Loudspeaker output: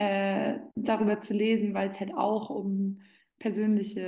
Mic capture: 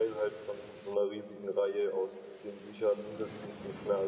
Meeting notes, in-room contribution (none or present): present